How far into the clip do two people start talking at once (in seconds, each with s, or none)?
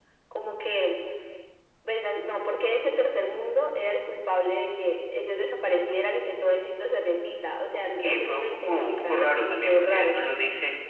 8.0 s